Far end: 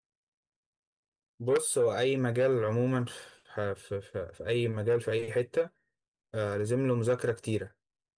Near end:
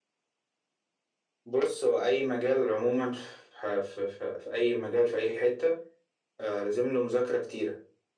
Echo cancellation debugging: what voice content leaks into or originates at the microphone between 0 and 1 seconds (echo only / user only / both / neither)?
neither